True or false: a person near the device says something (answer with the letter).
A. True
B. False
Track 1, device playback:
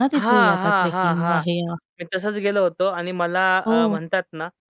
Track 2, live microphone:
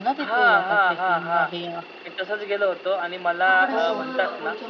A